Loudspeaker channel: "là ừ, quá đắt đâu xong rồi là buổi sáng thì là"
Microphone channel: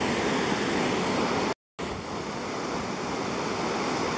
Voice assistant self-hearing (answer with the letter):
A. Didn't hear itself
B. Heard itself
A